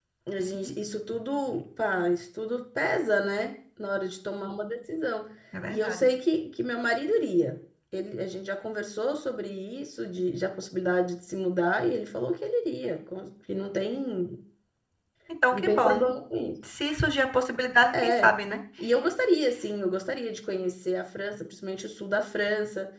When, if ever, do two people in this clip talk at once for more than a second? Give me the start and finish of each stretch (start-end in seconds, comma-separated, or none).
none